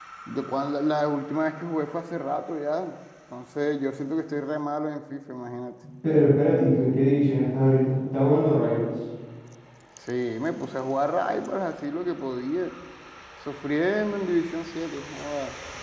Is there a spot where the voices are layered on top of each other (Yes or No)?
No